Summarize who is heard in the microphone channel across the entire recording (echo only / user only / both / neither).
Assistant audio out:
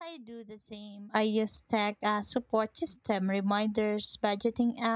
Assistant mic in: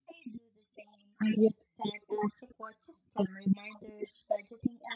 echo only